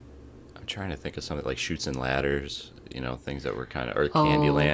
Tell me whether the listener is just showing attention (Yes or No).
No